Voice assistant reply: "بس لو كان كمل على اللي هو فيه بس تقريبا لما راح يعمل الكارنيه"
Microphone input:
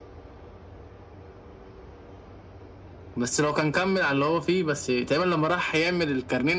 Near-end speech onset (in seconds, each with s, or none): none